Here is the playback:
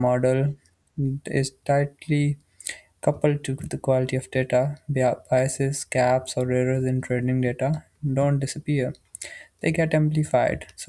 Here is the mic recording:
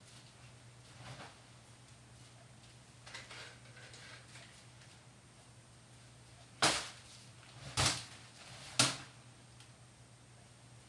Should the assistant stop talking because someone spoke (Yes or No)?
No